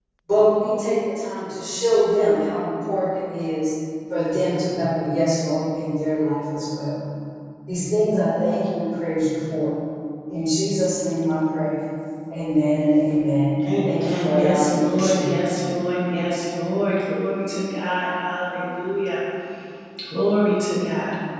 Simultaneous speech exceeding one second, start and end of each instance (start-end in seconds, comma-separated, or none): 13.8-15.4